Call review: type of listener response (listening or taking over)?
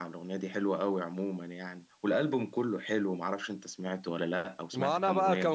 taking over